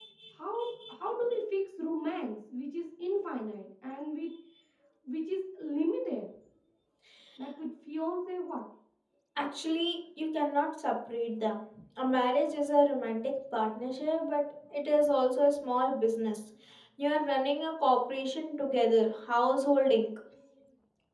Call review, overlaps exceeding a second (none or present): none